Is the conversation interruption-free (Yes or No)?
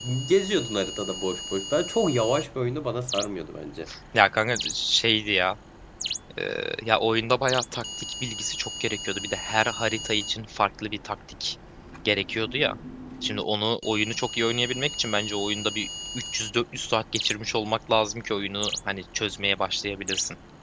Yes